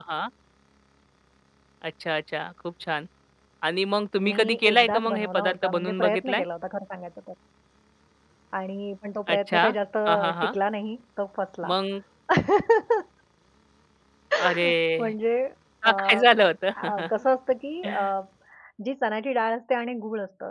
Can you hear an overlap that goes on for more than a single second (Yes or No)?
Yes